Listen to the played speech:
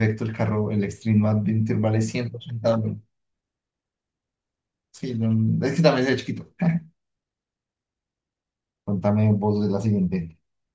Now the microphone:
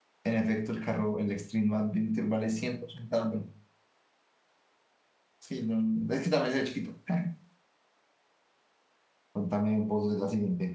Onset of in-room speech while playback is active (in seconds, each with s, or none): none